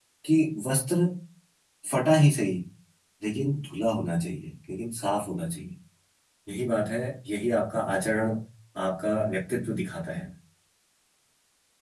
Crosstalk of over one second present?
No

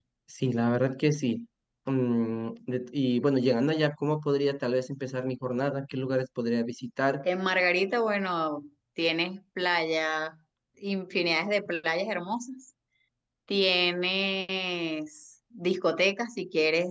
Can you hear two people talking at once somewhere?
No

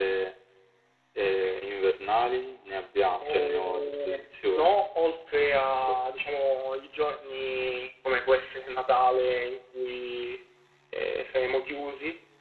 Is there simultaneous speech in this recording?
Yes, from 3.2 s

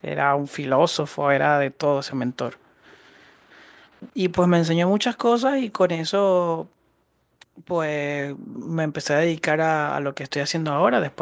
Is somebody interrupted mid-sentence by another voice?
No

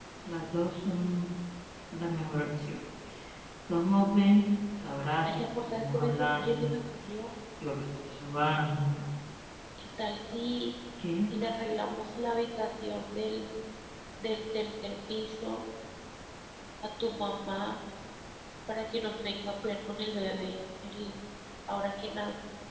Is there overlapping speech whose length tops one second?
Yes, from 5.2 s

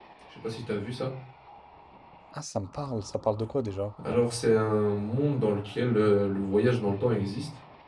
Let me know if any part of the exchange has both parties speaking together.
No

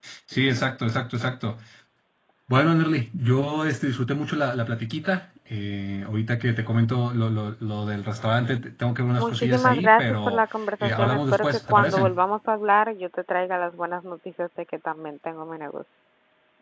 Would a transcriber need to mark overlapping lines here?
Yes, from 9.2 s

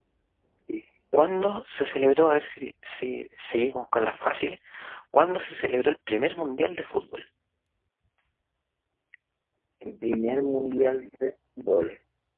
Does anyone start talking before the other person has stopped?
No

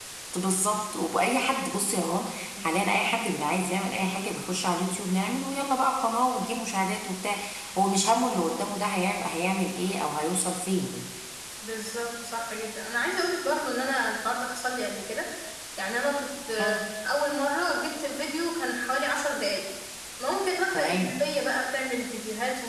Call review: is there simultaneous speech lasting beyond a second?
No

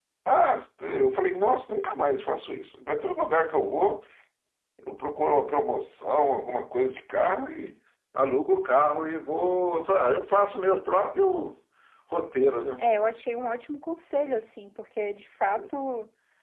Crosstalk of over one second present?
No

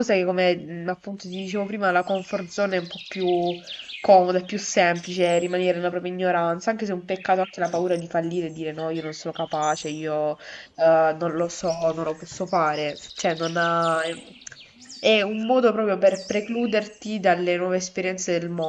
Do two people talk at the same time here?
No

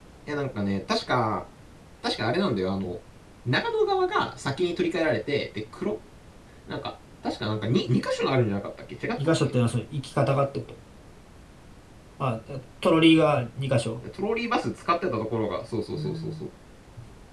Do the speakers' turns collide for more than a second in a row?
No

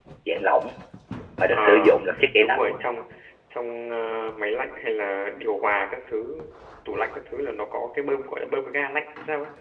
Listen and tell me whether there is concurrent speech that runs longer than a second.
No

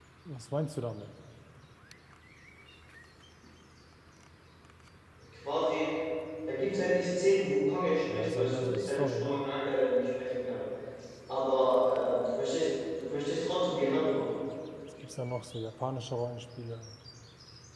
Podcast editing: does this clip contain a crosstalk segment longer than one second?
Yes, from 8.1 s

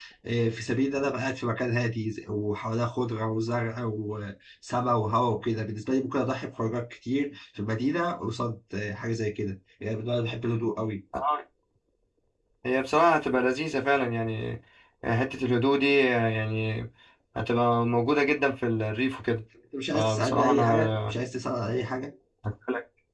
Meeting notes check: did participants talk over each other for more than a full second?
Yes, from 19.9 s

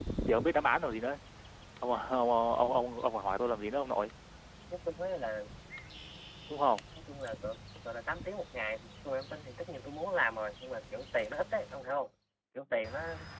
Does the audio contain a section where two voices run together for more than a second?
No

